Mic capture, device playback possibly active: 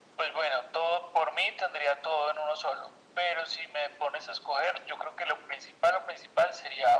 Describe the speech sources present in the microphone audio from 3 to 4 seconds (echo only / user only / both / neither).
echo only